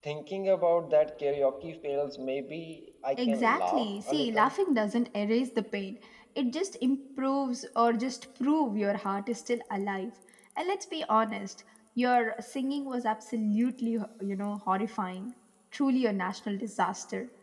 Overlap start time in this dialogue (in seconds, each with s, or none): 3.2 s